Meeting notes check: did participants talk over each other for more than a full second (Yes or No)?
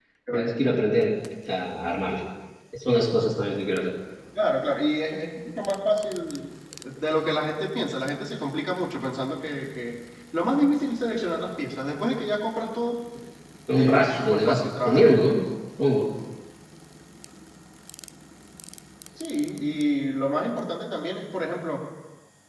Yes